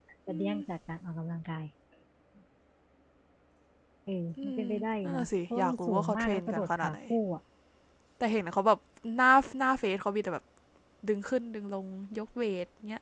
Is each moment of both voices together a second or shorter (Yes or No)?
No